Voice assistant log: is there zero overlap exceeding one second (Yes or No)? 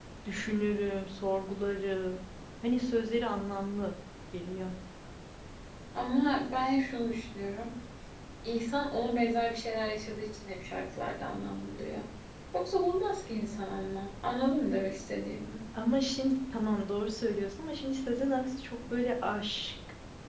Yes